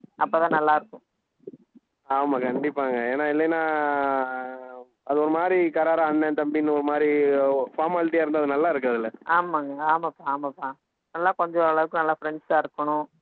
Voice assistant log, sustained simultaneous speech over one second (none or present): none